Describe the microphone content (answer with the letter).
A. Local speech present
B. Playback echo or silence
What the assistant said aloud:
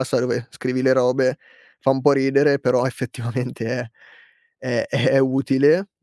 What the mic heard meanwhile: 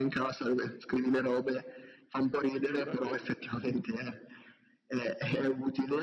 A